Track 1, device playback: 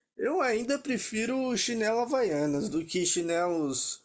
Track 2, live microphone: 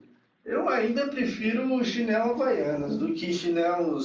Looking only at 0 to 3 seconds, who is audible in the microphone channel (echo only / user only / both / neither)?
echo only